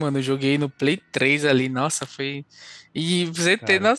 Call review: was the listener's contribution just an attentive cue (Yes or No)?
Yes